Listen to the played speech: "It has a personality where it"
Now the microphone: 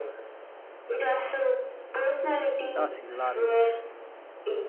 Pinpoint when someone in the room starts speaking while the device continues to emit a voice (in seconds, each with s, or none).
2.7 s